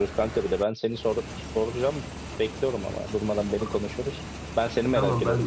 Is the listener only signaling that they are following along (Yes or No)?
No